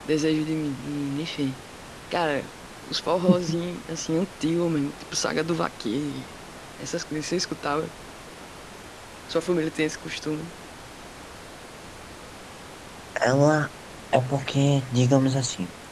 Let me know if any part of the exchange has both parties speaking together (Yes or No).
No